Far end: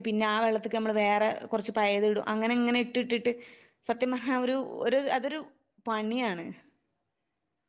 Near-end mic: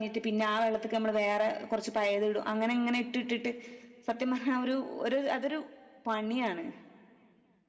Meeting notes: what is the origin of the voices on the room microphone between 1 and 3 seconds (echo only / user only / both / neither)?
echo only